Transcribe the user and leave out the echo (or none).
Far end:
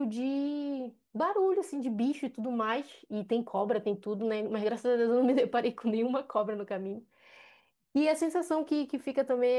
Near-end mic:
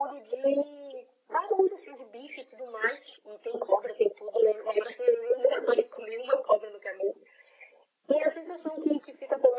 none